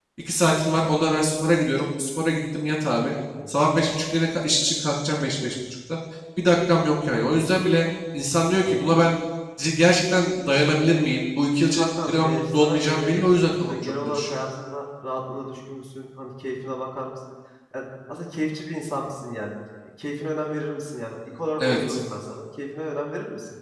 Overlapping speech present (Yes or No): Yes